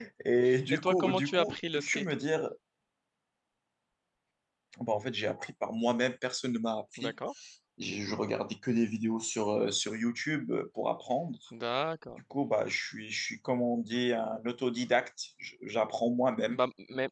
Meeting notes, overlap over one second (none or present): present